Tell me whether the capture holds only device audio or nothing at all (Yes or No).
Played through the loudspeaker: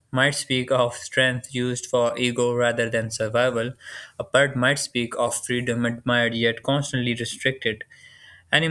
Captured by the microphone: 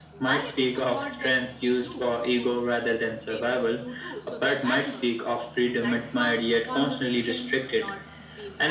No